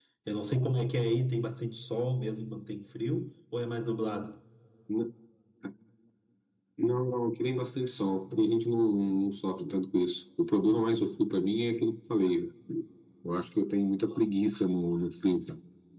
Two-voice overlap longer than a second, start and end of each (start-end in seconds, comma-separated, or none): none